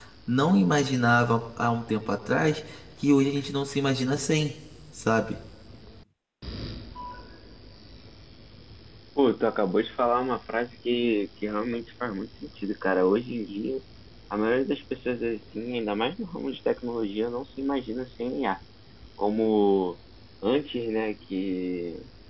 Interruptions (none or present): none